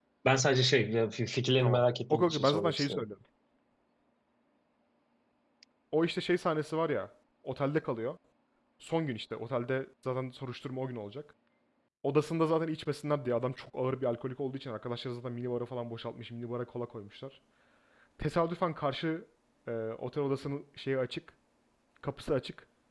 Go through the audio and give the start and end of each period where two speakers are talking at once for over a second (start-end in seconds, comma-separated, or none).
1.6-3.0